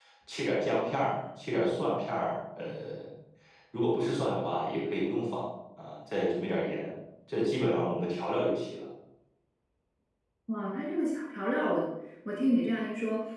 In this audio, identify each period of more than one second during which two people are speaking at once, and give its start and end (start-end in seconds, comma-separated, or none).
none